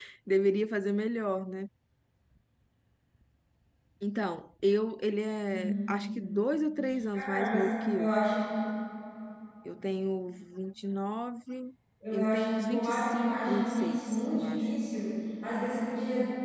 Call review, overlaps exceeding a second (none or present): present